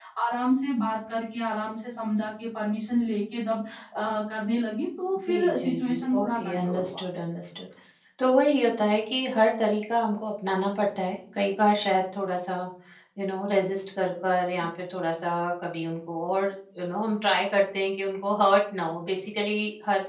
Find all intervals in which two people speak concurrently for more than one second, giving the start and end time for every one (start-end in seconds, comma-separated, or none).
5.3-7.0